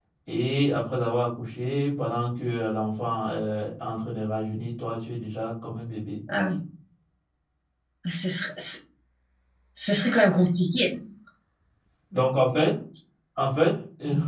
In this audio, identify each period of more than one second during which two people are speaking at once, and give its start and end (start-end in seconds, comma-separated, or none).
none